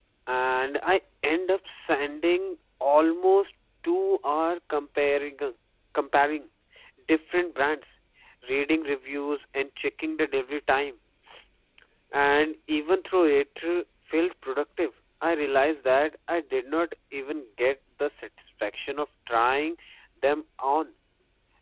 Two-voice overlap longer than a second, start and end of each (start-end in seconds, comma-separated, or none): none